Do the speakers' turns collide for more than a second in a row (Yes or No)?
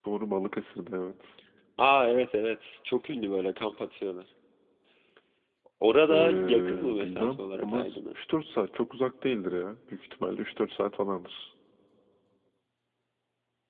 Yes